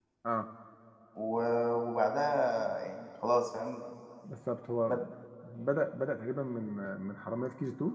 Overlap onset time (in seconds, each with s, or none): none